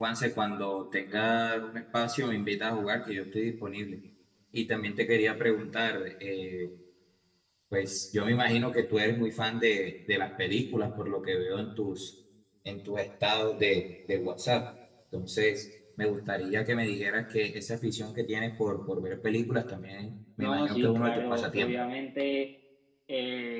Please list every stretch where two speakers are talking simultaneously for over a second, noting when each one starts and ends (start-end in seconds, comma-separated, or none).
20.4-21.7